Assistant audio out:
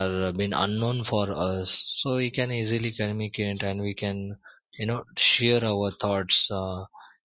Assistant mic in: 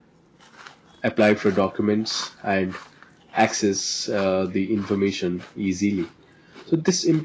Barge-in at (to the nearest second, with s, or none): 1 s